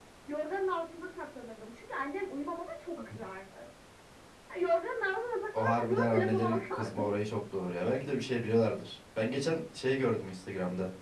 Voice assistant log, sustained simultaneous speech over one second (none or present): present